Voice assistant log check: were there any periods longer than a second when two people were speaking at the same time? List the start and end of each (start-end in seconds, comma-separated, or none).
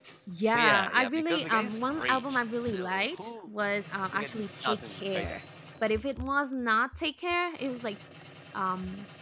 0.5-3.5, 4.1-5.4